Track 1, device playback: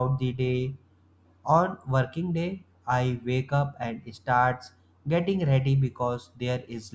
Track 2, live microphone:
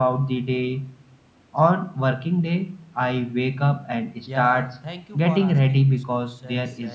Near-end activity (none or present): present